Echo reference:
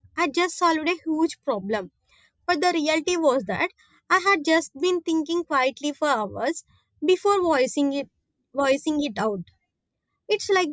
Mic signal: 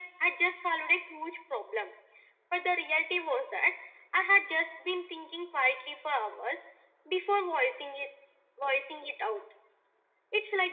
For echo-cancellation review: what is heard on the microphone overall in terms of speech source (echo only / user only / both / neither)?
echo only